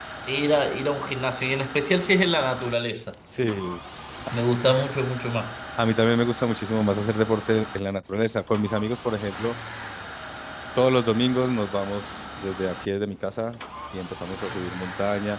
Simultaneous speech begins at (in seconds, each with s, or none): none